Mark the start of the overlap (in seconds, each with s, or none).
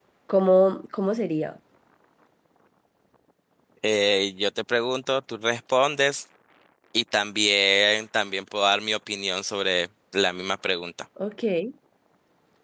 none